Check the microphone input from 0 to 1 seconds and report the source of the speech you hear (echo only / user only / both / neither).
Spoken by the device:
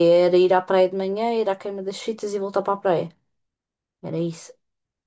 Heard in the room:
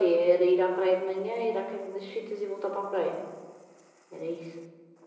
echo only